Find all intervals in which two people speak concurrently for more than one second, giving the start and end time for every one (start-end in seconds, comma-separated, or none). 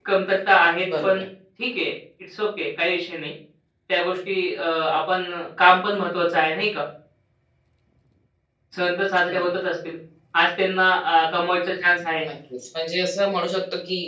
none